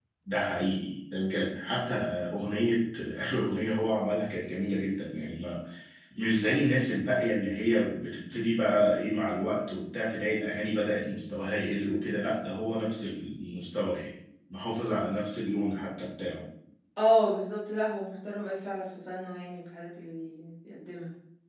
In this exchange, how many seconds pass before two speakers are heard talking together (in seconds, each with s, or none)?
none